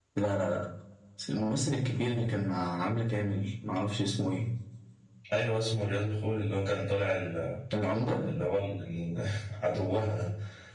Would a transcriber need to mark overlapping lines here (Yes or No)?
No